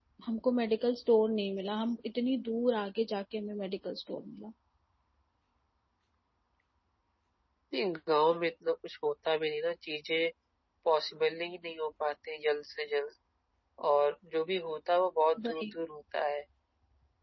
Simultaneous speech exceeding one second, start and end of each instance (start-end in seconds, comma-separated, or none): none